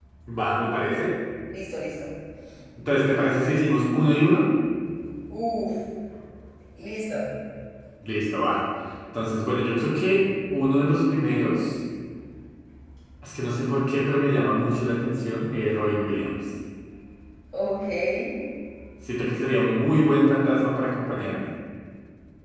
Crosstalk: none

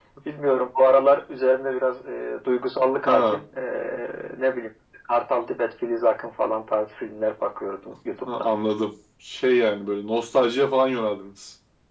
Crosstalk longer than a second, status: none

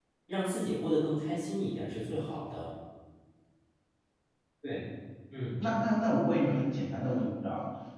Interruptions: none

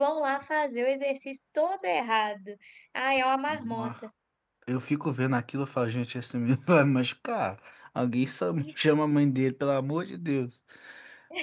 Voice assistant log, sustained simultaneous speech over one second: none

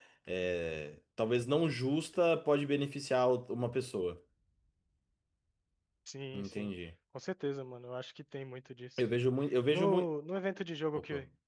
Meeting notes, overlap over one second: none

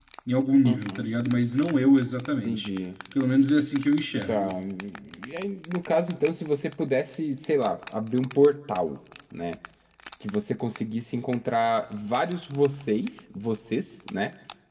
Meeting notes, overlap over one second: none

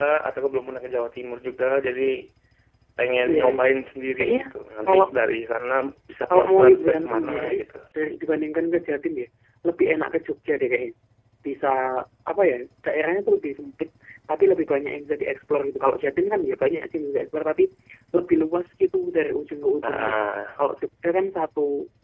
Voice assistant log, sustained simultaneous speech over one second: present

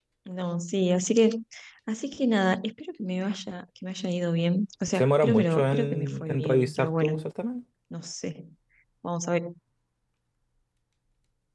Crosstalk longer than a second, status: present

